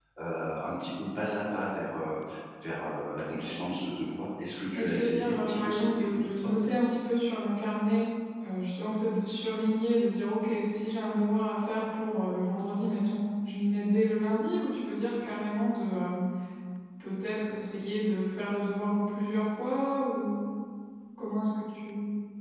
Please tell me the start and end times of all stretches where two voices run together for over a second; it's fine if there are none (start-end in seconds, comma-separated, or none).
4.7-6.5